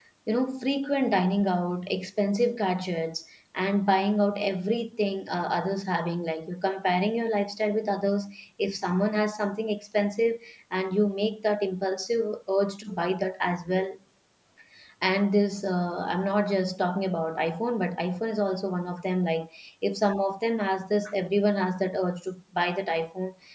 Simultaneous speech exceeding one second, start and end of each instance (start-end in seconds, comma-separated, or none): none